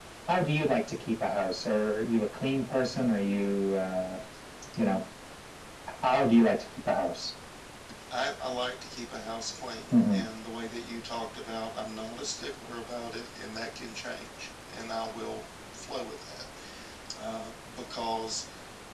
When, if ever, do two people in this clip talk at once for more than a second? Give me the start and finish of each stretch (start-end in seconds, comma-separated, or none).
none